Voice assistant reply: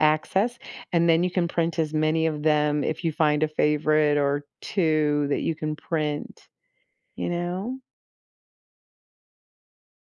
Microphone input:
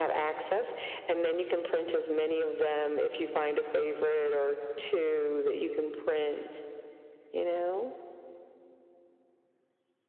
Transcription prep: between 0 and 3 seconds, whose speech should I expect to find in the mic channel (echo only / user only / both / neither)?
echo only